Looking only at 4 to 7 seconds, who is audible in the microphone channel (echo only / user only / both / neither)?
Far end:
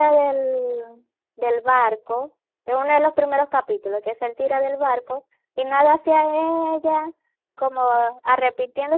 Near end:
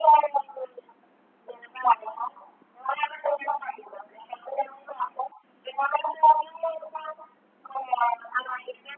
echo only